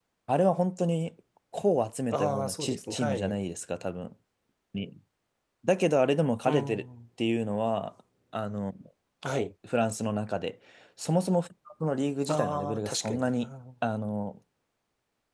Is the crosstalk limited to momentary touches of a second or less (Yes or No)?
No